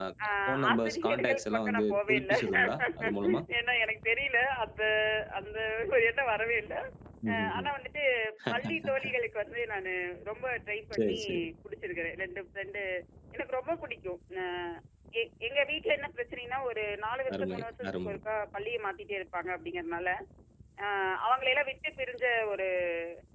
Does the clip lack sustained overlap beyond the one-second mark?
No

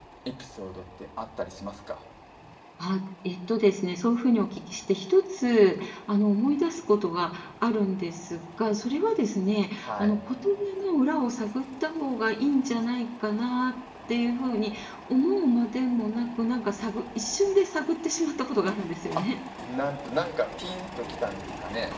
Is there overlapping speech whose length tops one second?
No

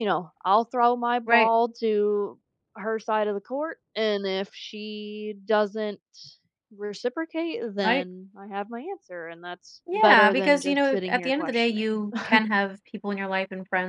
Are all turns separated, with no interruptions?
No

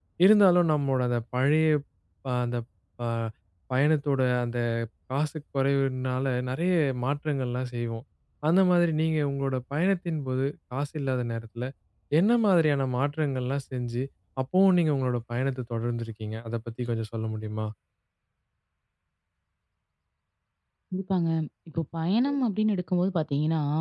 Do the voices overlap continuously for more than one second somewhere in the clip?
No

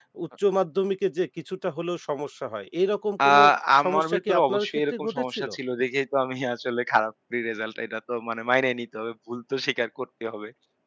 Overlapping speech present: Yes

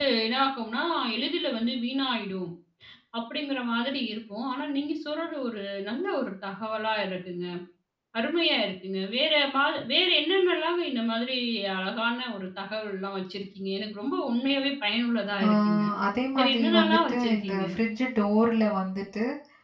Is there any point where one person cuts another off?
Yes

